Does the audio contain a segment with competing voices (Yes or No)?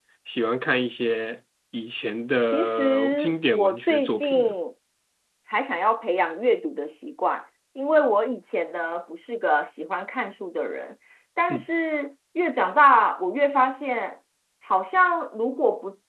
Yes